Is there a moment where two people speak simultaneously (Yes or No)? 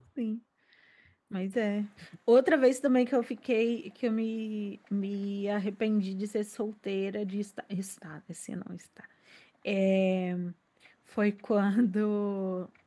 No